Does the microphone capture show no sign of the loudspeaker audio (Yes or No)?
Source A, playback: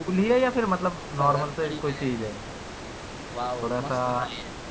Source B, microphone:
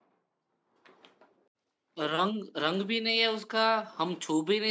Yes